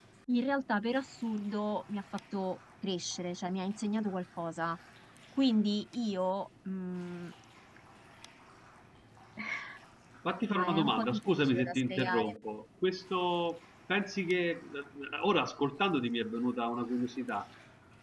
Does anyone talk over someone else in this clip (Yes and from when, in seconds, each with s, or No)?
Yes, from 10.5 s